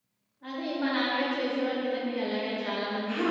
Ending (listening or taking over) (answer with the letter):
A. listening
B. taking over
A